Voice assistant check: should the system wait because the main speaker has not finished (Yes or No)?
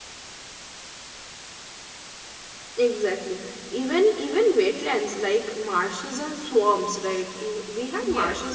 Yes